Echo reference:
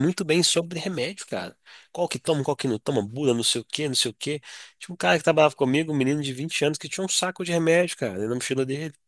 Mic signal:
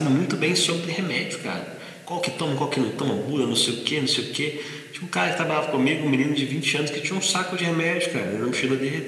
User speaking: No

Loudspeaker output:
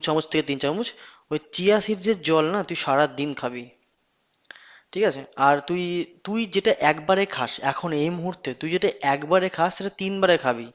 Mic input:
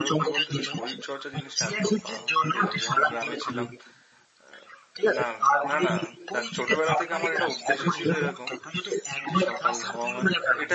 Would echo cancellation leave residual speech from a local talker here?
Yes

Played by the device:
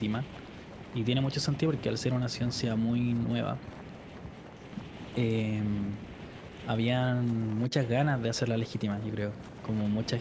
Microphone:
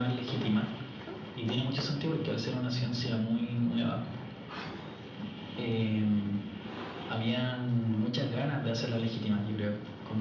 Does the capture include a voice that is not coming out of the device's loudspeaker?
No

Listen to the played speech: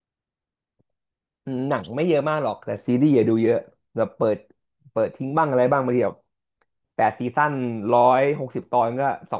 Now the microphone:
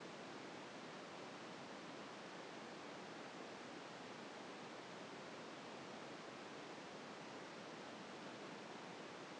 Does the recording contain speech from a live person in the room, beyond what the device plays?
No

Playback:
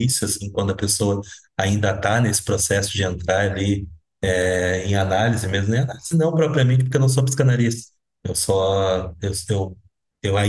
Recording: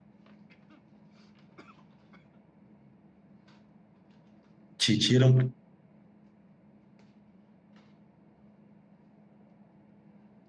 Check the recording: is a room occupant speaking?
Yes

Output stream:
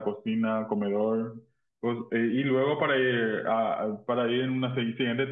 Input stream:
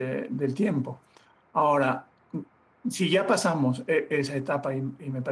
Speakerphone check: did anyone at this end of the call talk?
Yes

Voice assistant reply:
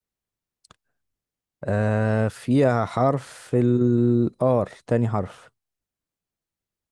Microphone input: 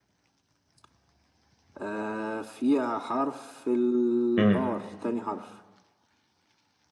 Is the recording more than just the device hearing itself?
Yes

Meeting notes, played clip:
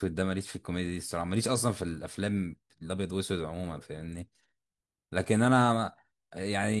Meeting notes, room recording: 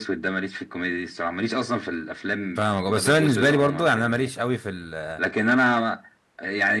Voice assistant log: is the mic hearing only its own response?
No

